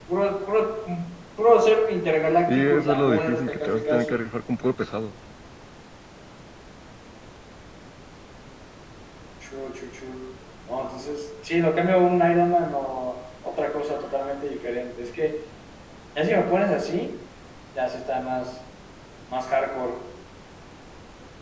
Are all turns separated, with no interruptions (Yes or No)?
No